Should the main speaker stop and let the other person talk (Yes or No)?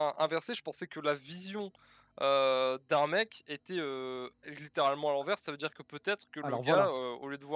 No